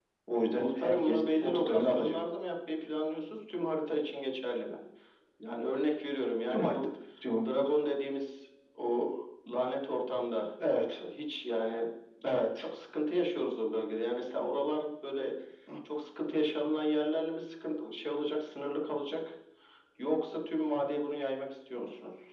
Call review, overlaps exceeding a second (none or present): present